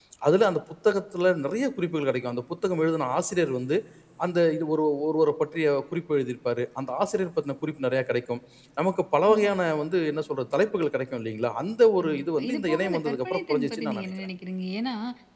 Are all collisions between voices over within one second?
No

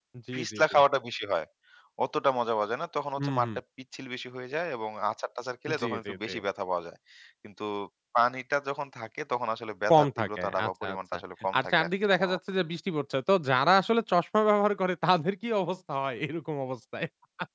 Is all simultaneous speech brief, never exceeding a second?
No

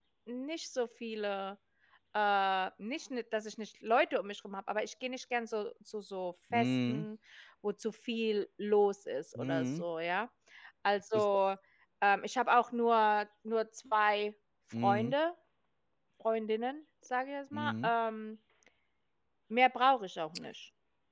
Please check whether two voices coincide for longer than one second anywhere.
No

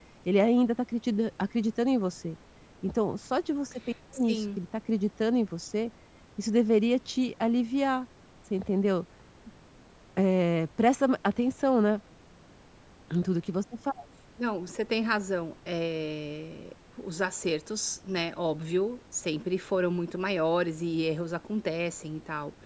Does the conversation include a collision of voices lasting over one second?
No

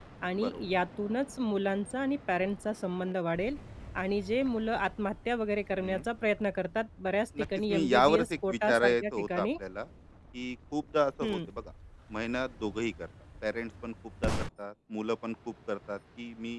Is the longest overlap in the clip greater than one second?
Yes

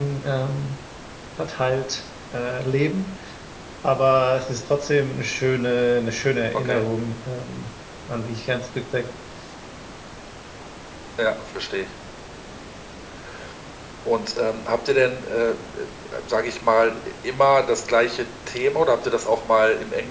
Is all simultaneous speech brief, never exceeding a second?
Yes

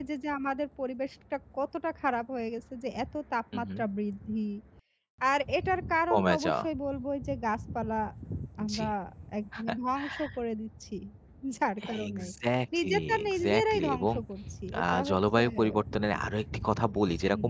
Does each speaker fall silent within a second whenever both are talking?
No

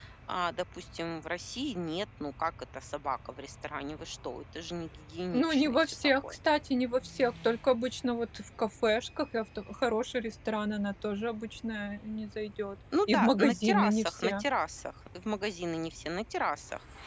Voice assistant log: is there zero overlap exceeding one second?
No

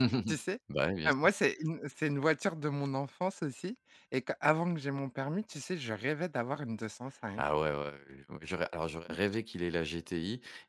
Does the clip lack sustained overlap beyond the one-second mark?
Yes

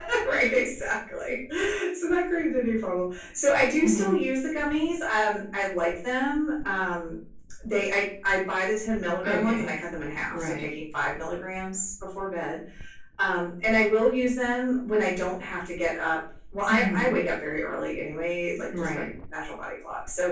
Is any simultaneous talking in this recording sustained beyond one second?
No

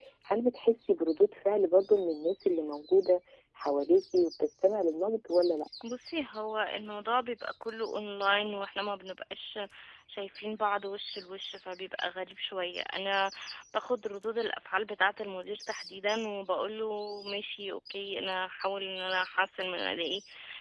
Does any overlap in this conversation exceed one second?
No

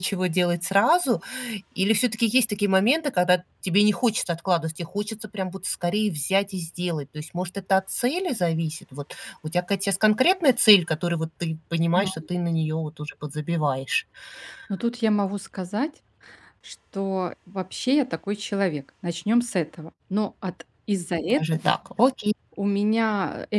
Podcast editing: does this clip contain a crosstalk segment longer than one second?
No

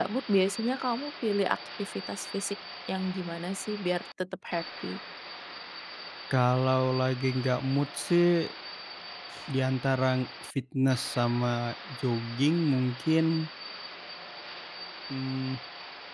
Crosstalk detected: No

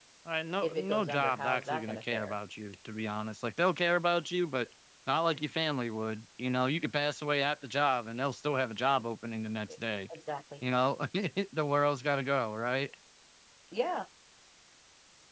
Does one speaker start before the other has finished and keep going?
Yes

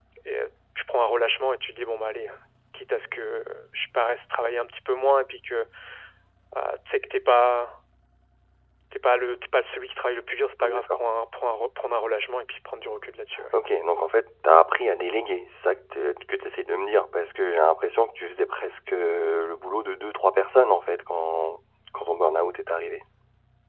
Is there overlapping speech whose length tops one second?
No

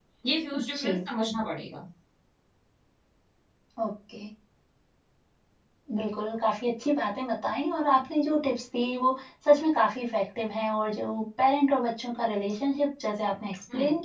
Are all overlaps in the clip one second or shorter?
Yes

